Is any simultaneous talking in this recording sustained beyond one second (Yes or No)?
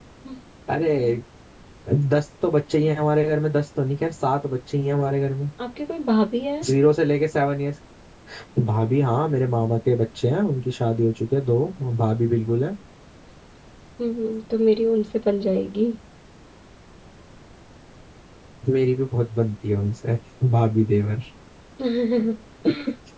No